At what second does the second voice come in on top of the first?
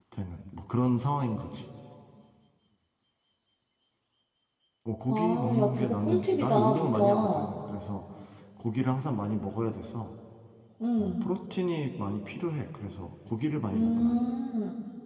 5.1 s

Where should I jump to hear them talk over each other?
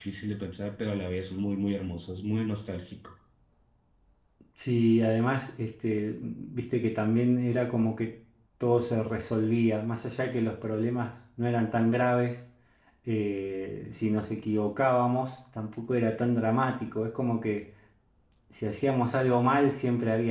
none

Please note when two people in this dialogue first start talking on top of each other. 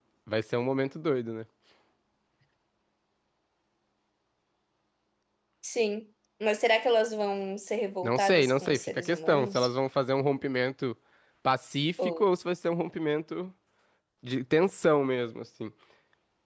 8.0 s

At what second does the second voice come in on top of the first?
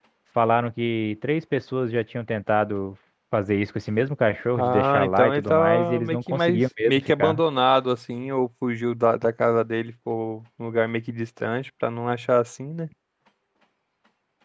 4.6 s

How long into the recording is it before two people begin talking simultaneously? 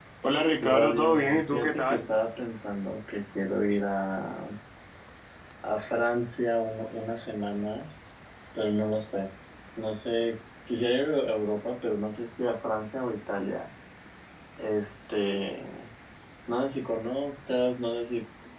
0.6 s

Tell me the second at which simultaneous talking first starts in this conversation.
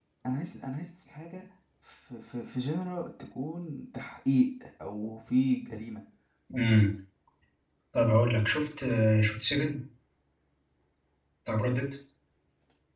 none

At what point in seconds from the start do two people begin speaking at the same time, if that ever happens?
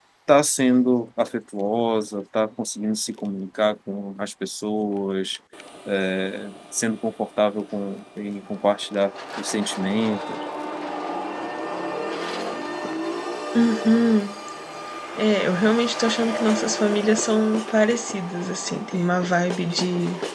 none

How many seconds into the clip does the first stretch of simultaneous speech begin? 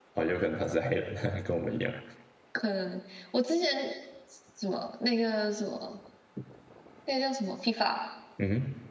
none

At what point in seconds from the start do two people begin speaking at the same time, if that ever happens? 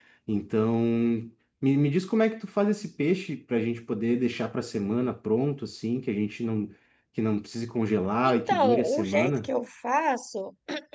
8.2 s

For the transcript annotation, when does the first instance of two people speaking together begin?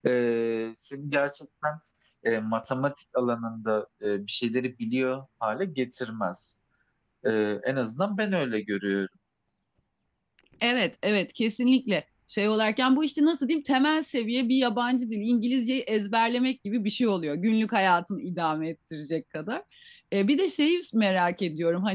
none

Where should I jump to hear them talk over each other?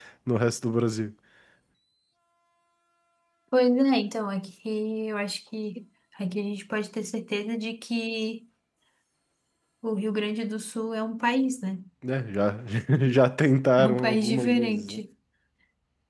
13.8 s

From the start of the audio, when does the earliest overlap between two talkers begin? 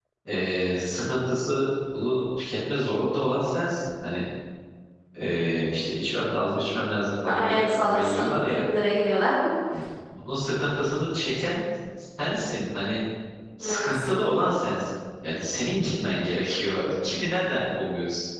7.3 s

